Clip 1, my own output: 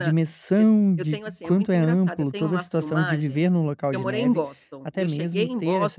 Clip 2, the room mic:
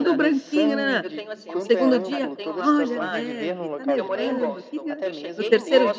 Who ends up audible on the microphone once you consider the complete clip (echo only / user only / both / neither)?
both